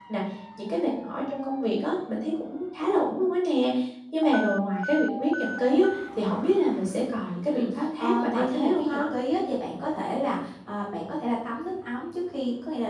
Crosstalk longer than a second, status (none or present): present